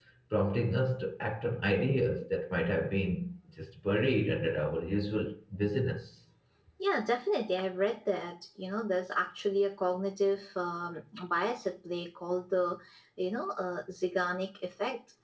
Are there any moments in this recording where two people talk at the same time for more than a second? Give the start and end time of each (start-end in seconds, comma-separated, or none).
none